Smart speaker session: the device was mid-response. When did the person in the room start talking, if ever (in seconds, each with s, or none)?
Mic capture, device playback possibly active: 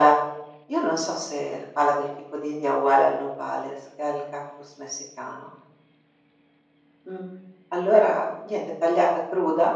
none